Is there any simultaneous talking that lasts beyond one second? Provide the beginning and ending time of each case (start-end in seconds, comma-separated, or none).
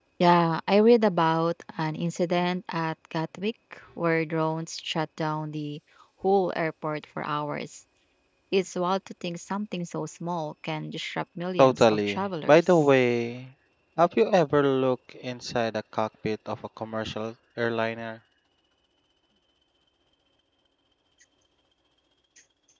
11.6-12.8